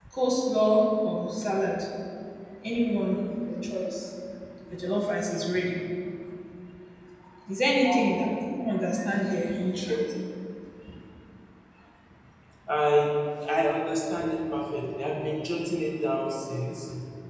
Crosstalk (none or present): none